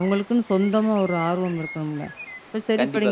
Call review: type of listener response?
listening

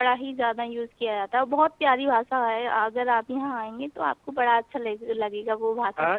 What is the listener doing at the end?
taking over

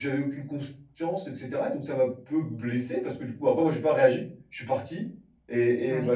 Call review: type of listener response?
listening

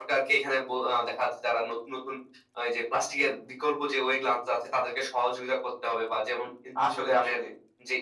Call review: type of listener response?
listening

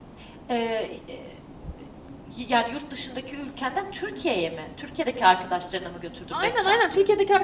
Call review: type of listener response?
taking over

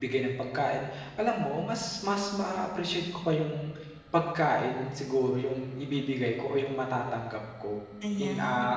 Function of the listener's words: listening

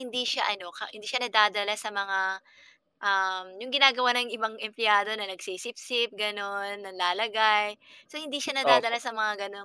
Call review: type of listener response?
listening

